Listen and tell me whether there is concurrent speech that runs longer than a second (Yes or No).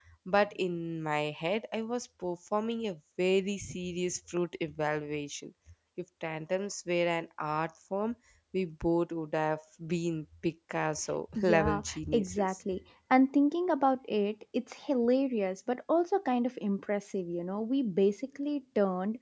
Yes